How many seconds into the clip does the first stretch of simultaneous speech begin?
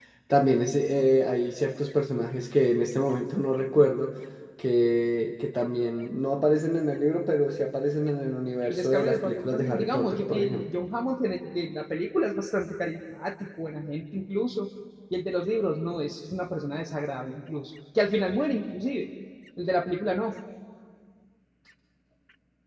8.7 s

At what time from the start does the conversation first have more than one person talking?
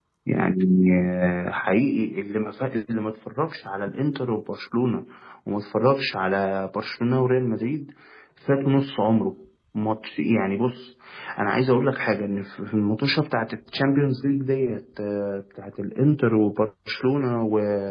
none

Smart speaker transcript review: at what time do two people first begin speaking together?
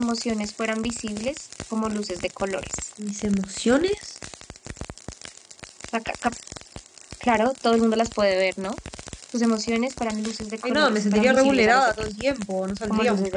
10.6 s

